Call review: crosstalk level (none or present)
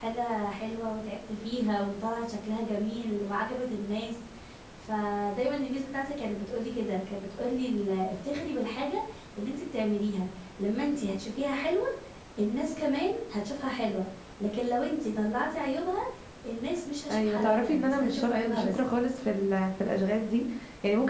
present